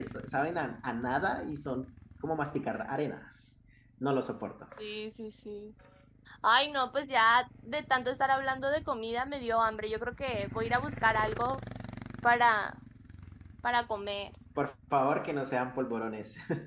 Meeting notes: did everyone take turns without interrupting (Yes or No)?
Yes